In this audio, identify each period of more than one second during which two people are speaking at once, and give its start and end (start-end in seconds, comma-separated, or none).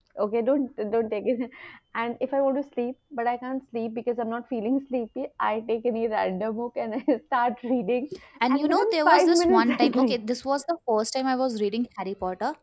8.5-10.2